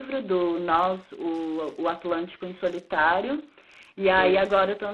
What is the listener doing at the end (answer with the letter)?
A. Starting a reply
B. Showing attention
B